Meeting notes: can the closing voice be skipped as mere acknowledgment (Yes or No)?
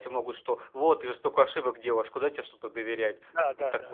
No